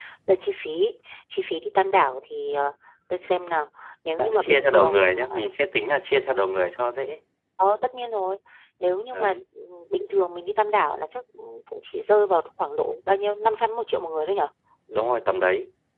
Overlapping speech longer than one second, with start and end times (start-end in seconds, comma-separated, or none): 4.2-5.5